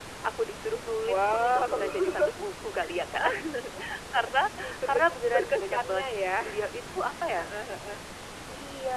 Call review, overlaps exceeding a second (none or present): present